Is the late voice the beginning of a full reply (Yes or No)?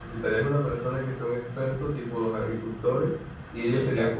No